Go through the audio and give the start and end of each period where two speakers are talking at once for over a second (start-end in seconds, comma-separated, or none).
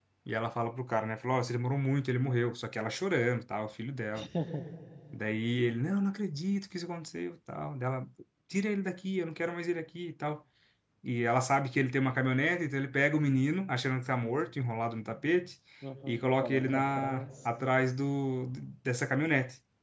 16.1-17.5